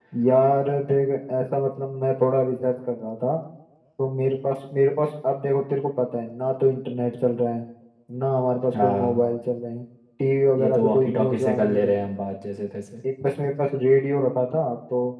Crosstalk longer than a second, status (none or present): present